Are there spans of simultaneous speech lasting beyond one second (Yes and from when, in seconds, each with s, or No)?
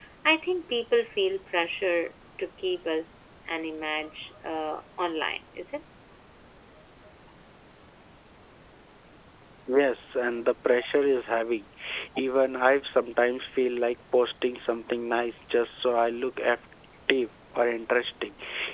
No